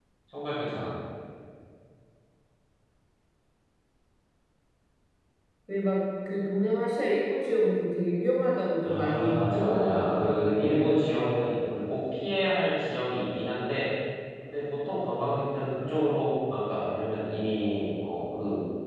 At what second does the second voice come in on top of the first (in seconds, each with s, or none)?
8.8 s